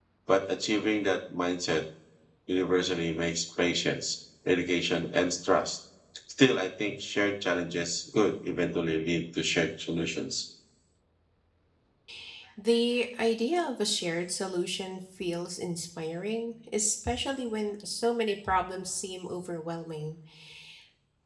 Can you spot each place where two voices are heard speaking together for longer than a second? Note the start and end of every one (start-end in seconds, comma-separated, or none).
none